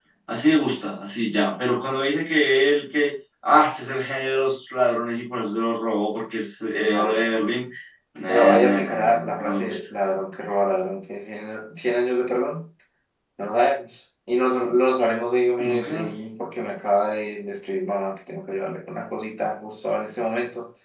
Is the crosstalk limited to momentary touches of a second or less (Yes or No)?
No